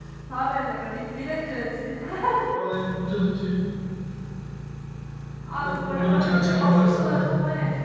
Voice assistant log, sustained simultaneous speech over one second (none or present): present